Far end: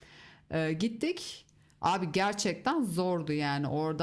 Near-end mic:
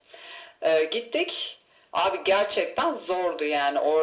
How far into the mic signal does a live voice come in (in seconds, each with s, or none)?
none